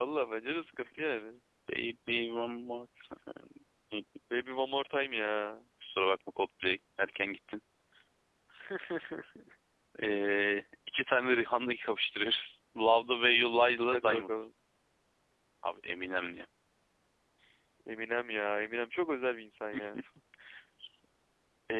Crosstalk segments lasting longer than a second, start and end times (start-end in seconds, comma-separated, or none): none